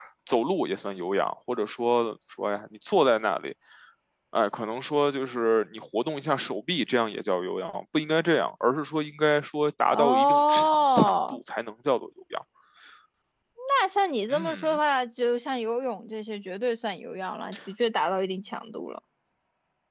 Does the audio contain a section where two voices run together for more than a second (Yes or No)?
Yes